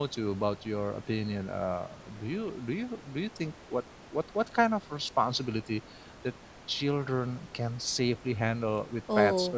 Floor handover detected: Yes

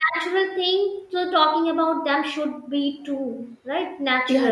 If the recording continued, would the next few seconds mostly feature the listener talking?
Yes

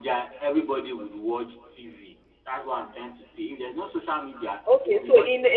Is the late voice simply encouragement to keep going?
No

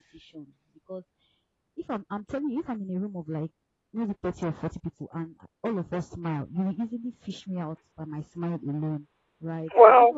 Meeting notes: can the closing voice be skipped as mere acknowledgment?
Yes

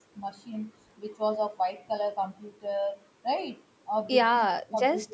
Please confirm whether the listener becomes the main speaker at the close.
Yes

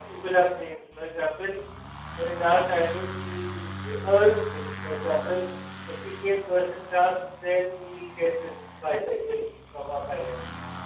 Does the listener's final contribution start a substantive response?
No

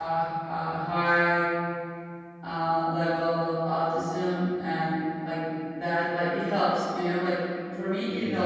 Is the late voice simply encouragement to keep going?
Yes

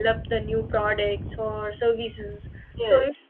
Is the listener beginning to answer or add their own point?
No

